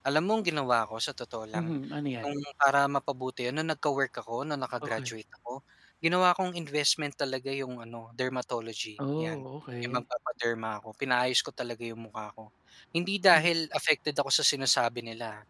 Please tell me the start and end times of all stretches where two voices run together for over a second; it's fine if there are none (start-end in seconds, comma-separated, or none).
none